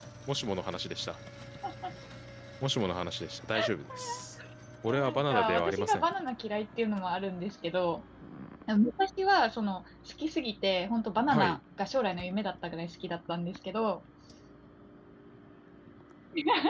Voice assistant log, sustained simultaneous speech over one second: present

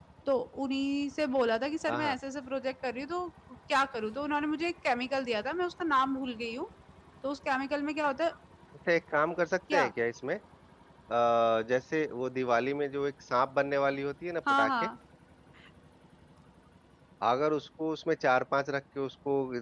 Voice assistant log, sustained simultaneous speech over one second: none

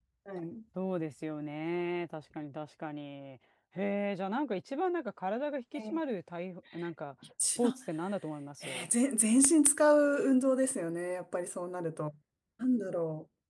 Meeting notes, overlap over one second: none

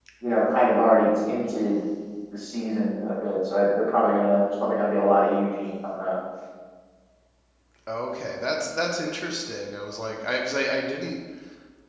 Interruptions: none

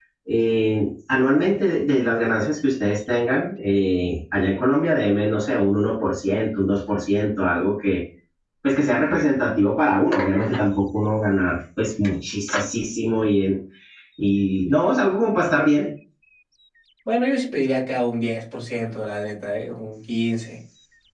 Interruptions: none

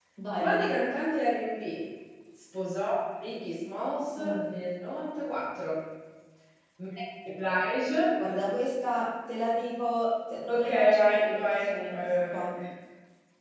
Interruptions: present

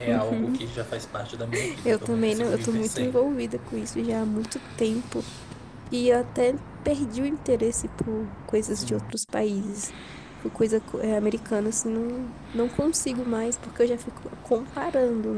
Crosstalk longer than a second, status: present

